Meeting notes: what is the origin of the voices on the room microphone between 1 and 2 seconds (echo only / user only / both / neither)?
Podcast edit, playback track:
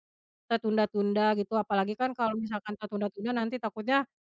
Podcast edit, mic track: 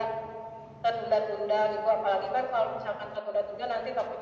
echo only